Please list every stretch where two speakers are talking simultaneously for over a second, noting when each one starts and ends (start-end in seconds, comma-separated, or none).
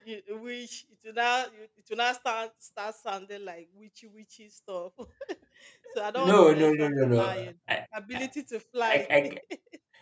6.2-7.5